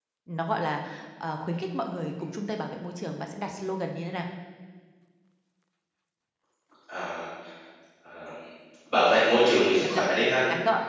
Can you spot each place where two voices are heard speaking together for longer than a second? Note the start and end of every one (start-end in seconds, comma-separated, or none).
none